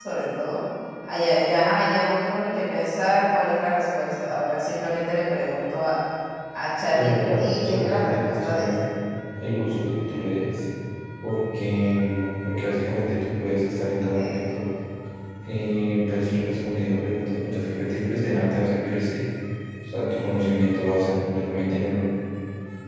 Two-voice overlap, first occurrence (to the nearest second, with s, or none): 7 s